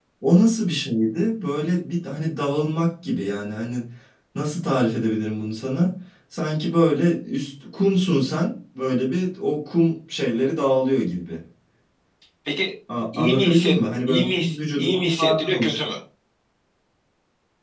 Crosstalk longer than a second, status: present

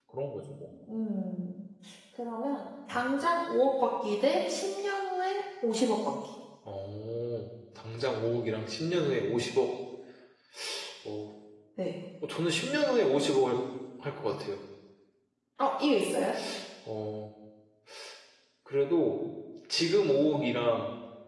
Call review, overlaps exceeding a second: none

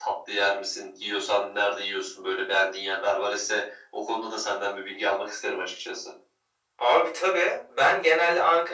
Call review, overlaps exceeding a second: none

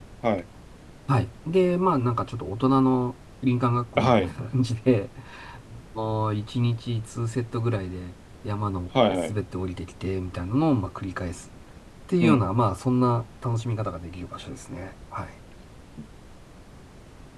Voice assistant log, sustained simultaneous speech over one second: none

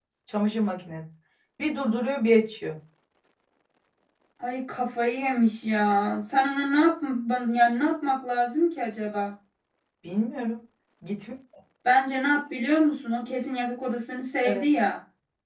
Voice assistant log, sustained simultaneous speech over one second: none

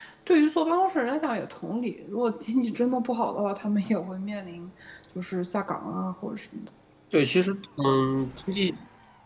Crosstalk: none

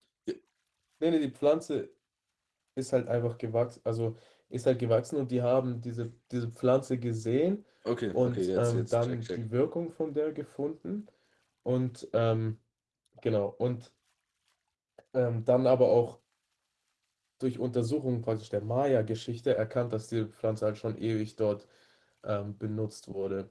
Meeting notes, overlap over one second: present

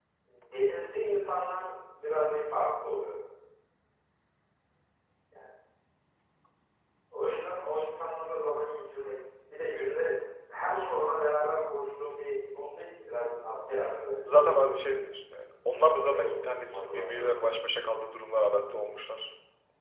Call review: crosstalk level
present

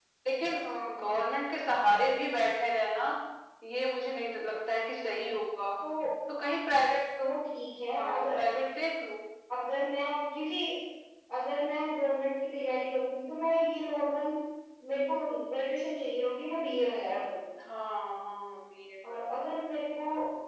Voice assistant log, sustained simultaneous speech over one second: none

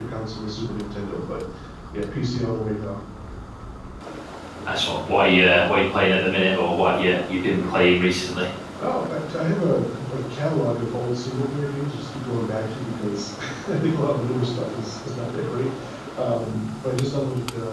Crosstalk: none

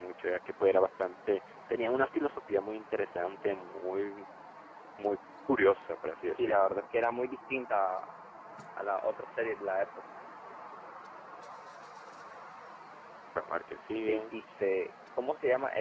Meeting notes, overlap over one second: none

